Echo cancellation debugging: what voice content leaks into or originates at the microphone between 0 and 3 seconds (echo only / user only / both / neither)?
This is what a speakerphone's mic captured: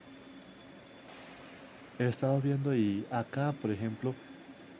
user only